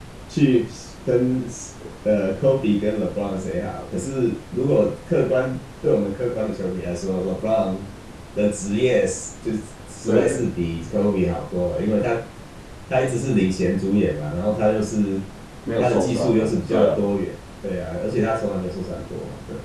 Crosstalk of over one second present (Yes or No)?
Yes